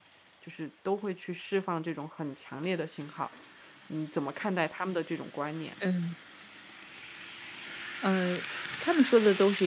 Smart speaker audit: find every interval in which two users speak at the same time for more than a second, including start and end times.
none

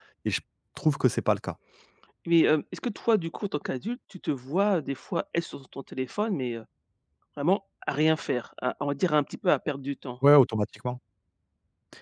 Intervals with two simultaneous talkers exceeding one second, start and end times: none

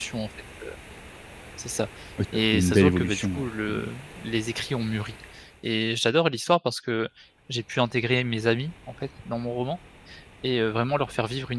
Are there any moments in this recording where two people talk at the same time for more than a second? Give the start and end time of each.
2.5-3.9

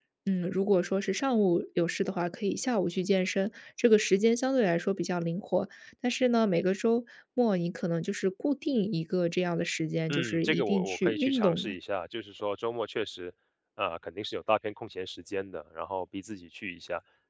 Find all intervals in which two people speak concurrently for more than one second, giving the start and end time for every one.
10.1-11.8

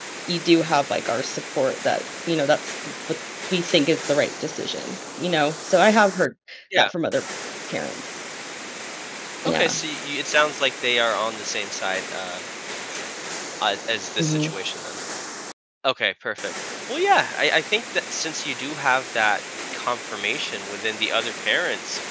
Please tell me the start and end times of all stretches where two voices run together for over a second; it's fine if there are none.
none

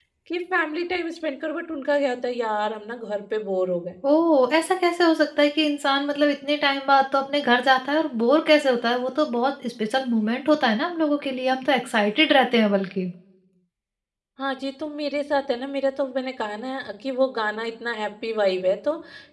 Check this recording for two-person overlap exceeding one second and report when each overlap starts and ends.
none

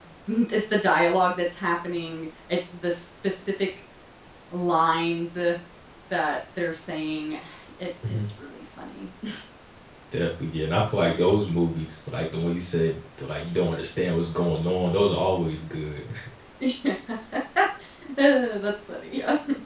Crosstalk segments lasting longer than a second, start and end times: none

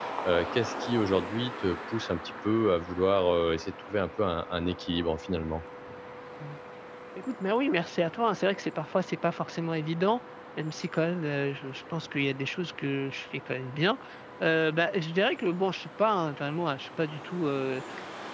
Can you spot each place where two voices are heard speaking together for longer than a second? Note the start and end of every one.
none

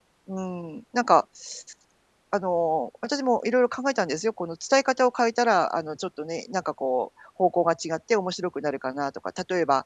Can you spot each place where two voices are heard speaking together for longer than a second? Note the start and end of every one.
none

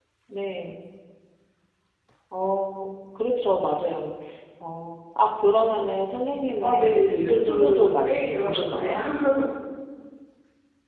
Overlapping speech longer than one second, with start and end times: 6.6-8.9

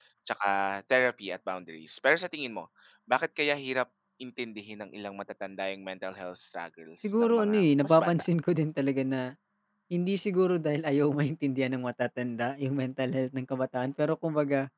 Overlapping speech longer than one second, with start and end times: 7.0-8.2

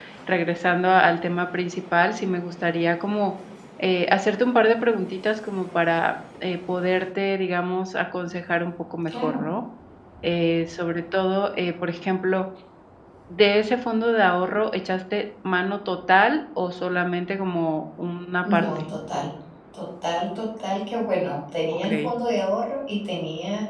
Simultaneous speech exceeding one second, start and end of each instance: none

